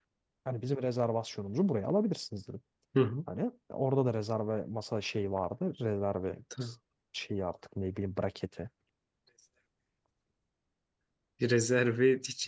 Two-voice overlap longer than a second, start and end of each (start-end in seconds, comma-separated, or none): none